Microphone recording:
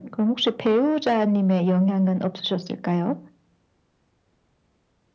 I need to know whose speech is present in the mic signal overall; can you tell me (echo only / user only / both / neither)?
echo only